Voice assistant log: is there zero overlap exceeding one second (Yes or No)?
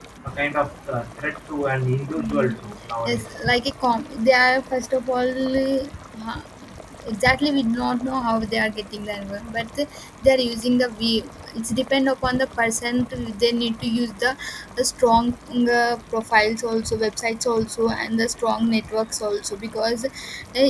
Yes